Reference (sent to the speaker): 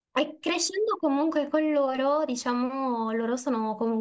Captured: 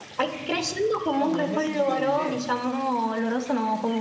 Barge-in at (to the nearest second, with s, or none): 1 s